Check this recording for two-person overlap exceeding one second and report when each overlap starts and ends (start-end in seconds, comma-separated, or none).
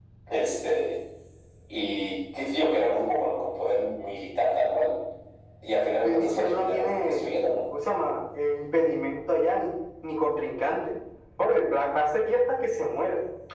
6.0-7.2